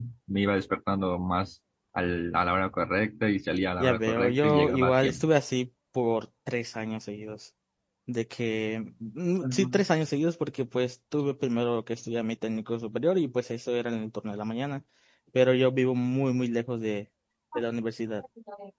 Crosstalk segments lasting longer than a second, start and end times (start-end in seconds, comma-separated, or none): 3.8-5.2